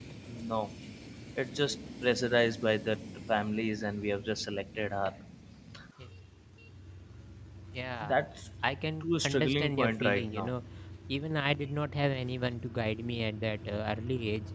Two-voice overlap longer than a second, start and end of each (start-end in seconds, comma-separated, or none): 9.0-10.5